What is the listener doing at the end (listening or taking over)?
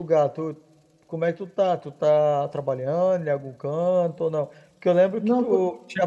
listening